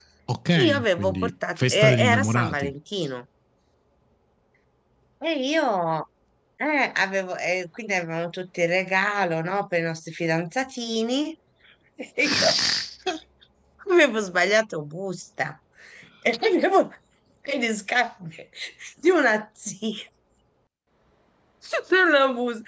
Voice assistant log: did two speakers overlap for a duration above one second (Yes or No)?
Yes